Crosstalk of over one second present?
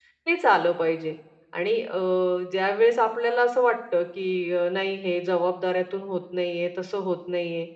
No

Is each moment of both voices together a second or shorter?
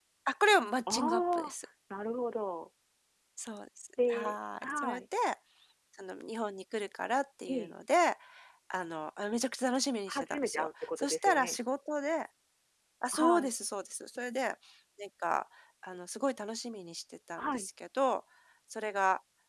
No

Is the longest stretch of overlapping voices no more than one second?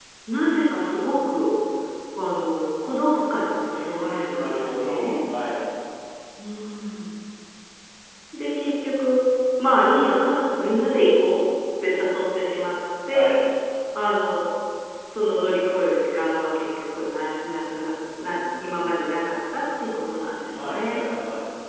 No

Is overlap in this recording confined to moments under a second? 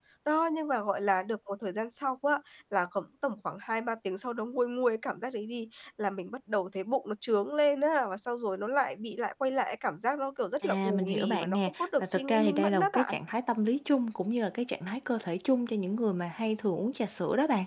No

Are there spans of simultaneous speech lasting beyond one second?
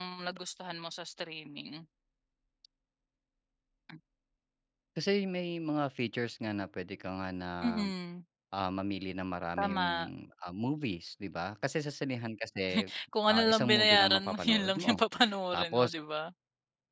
Yes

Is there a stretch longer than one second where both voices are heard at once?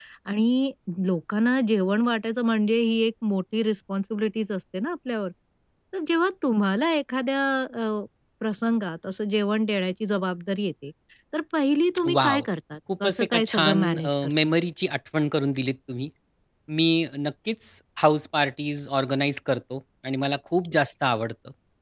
Yes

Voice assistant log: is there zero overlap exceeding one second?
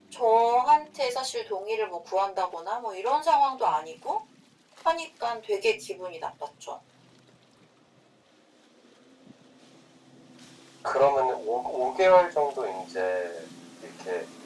Yes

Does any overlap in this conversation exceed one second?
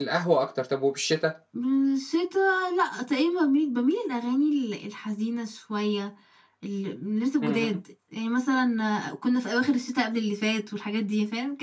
No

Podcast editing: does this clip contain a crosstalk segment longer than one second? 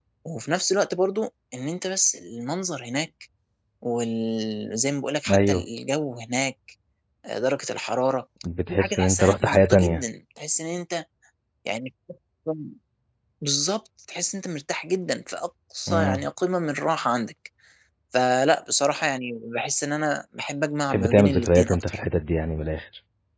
Yes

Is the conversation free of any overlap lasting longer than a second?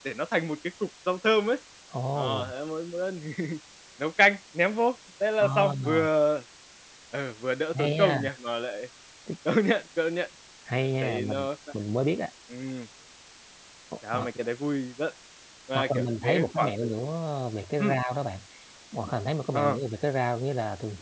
No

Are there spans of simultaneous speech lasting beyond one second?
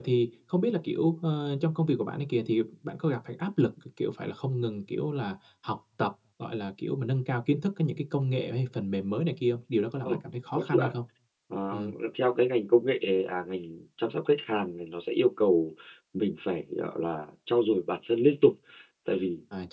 No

